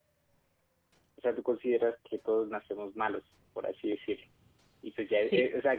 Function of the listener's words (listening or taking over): listening